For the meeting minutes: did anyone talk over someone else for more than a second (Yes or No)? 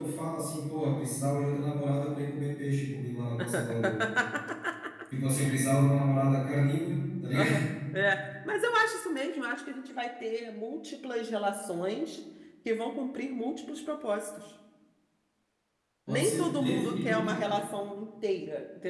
Yes